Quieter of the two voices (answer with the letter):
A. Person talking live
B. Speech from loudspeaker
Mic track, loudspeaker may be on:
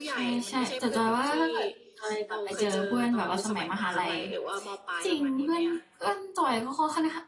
B